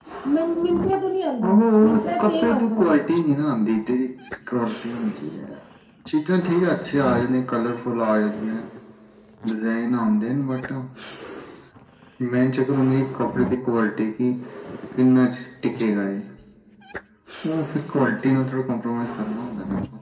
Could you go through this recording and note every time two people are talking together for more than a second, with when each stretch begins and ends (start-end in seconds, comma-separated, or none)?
1.4-2.9